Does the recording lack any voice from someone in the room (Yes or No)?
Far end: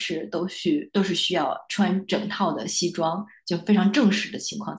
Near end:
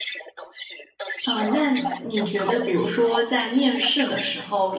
No